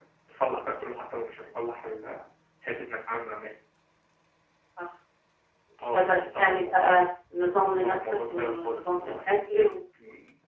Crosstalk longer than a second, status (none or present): present